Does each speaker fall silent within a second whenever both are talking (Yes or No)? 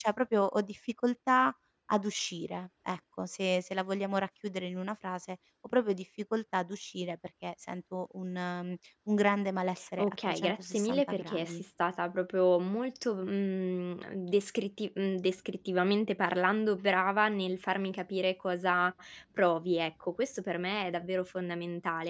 No